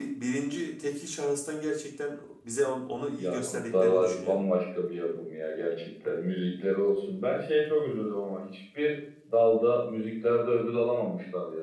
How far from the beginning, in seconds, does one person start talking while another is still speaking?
3 s

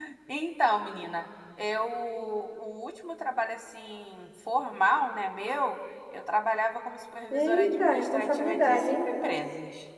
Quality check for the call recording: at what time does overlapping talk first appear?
7 s

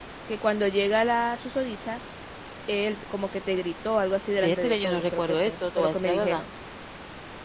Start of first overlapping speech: 4 s

